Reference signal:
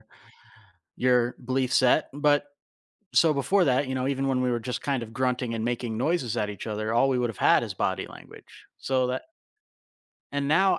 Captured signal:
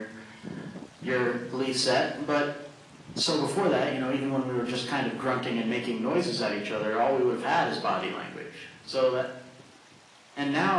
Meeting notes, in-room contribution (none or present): none